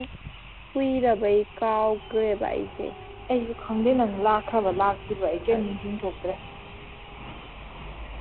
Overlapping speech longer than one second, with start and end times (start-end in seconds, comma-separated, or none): none